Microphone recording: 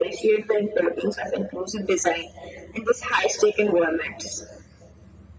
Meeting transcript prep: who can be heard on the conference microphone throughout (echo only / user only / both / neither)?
echo only